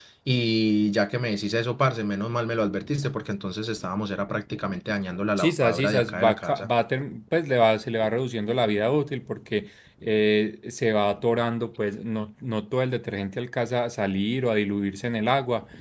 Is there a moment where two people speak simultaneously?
Yes, from 5.4 s

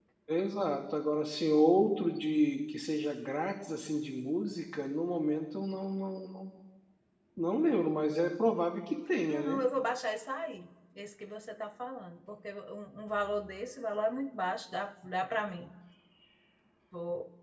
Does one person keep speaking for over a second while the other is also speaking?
No

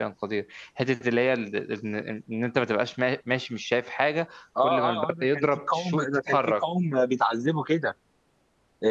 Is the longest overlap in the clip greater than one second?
Yes, from 4.6 s

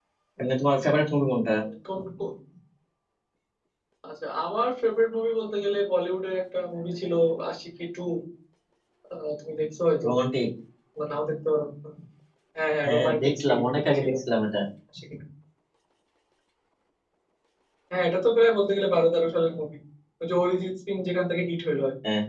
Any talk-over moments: Yes, from 12.8 s

